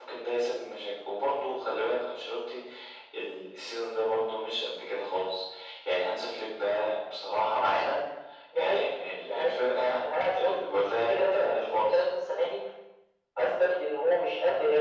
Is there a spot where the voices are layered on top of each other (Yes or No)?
Yes